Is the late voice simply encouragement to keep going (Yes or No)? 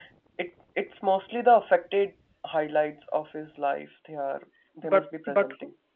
No